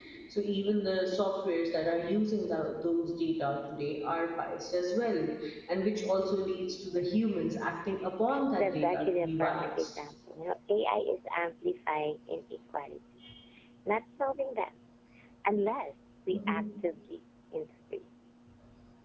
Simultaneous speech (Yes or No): Yes